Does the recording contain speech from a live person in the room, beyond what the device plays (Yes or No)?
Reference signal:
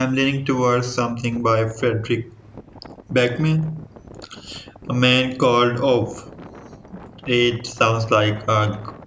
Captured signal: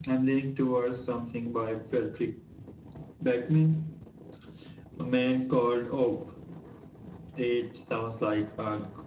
No